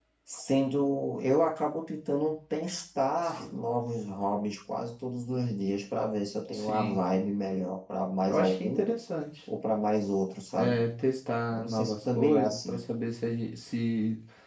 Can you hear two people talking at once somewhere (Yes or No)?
Yes